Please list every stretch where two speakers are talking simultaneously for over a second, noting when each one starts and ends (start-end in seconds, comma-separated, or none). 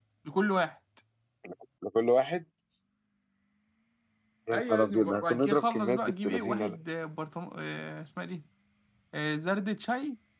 4.5-6.8